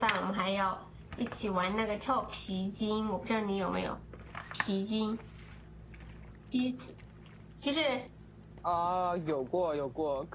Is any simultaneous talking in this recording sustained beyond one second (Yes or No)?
No